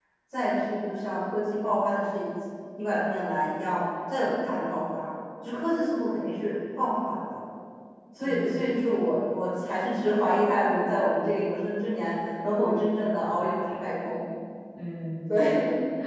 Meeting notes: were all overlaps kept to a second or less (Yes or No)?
Yes